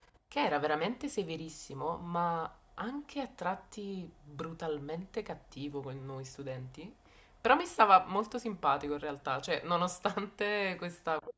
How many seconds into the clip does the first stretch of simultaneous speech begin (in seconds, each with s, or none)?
none